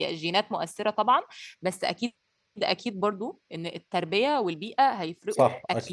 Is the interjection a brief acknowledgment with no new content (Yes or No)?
No